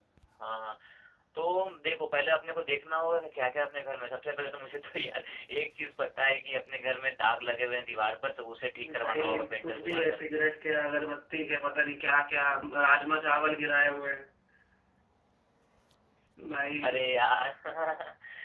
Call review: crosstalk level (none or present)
present